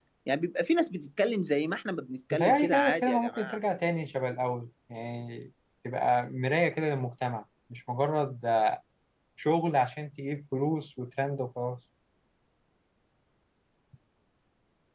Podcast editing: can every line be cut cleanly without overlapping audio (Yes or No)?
No